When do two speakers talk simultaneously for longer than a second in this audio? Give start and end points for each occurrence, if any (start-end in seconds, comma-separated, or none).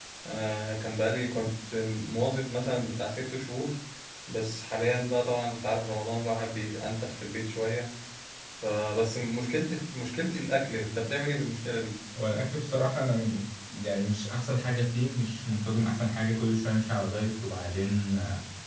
none